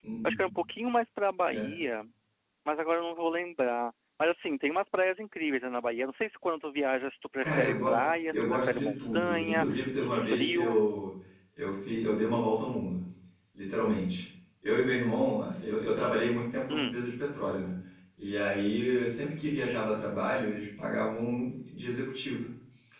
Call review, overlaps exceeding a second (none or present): present